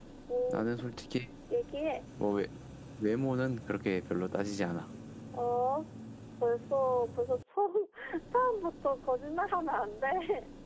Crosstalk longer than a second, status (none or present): none